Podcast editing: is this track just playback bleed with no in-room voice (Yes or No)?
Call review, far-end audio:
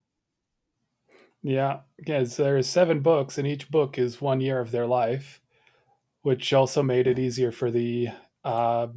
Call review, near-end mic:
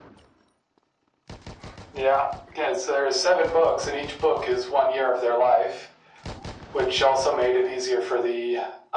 Yes